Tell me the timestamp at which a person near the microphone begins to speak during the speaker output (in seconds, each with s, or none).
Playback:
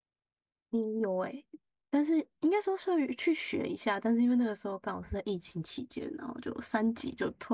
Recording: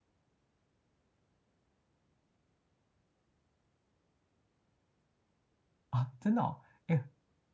5.9 s